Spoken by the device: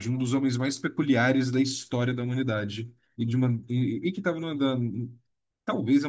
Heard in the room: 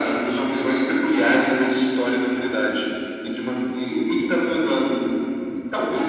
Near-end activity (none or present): none